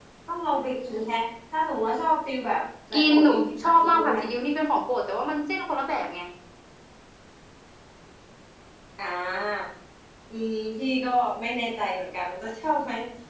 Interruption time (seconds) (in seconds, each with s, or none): 2.9 s